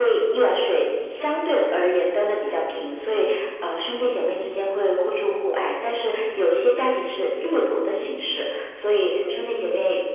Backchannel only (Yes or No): Yes